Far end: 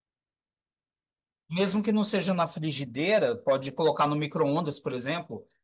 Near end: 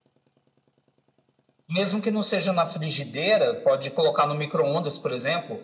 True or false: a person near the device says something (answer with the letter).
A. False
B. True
A